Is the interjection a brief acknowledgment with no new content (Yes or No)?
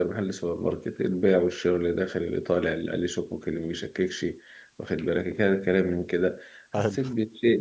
Yes